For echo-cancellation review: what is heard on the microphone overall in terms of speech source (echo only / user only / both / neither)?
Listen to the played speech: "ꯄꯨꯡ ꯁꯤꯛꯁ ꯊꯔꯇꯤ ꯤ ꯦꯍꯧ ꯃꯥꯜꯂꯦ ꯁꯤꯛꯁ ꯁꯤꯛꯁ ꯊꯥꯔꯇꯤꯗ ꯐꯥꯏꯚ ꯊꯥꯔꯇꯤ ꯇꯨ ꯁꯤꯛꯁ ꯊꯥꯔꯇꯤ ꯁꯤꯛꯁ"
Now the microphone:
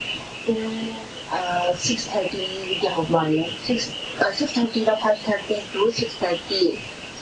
echo only